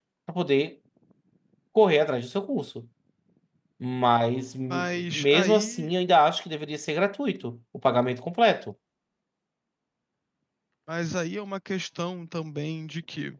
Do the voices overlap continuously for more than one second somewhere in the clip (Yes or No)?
Yes